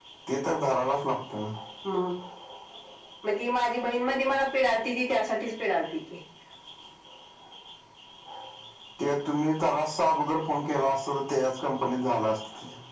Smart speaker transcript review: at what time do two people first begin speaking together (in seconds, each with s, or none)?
none